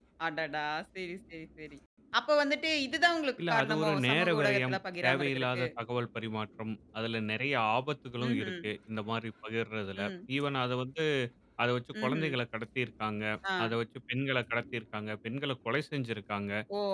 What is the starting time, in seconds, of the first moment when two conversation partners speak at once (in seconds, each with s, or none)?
3.4 s